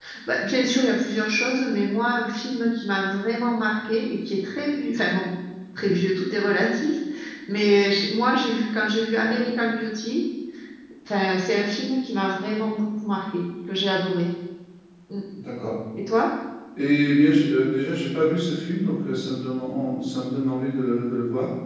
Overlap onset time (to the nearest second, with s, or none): none